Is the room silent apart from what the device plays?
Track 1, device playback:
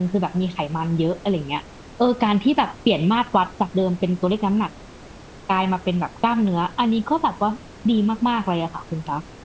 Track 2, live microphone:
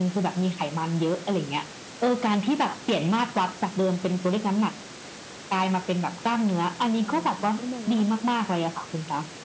No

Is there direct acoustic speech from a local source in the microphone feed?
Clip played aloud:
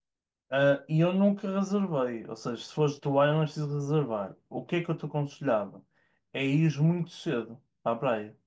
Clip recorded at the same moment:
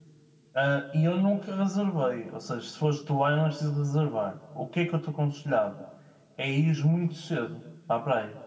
No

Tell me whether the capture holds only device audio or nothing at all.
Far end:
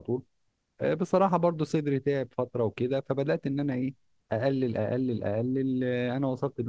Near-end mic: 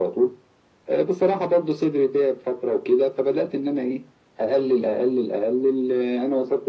Yes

